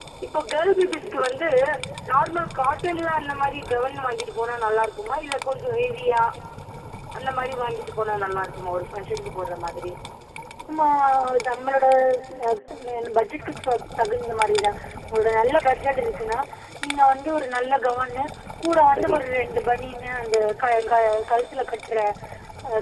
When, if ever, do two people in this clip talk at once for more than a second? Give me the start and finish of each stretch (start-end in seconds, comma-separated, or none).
none